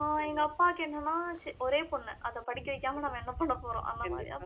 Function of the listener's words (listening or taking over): listening